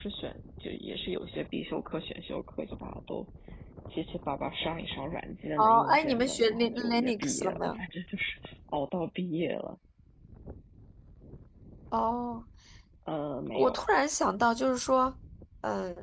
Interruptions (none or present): present